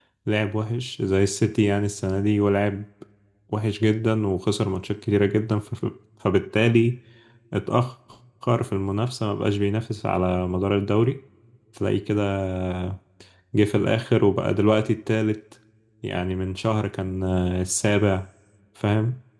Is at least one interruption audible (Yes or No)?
No